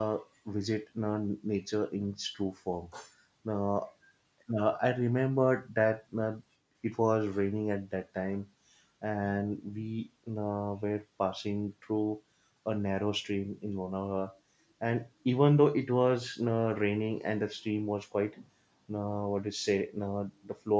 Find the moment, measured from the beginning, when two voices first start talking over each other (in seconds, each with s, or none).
none